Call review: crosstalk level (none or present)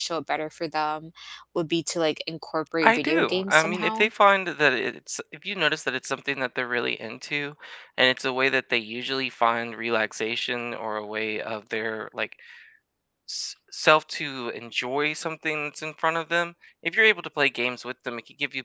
present